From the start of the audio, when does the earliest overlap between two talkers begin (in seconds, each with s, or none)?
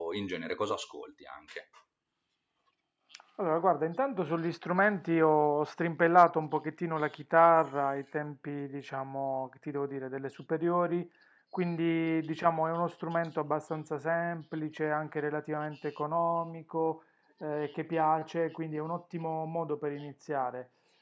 none